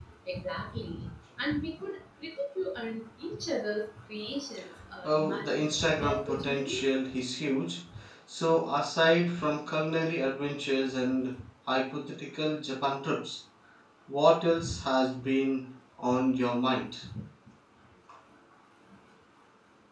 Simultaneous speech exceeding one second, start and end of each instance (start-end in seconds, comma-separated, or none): 5.0-6.8